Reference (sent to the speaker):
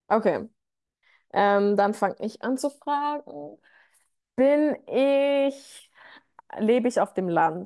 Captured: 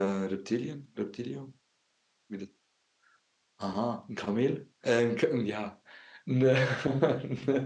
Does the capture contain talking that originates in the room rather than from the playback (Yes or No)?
Yes